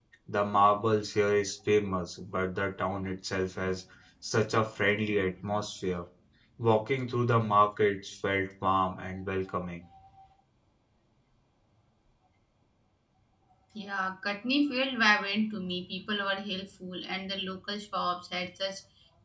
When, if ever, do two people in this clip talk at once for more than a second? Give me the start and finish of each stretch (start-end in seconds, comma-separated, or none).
none